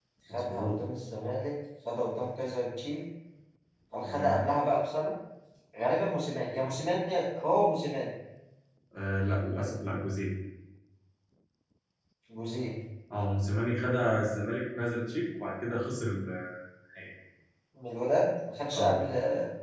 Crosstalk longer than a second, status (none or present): none